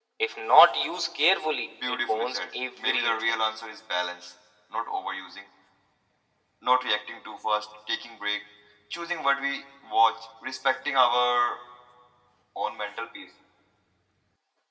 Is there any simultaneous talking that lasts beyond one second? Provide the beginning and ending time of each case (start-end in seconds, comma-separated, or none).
1.9-3.1